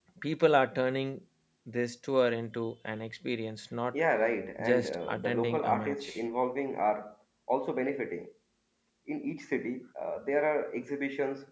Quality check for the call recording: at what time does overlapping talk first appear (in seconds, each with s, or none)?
4.6 s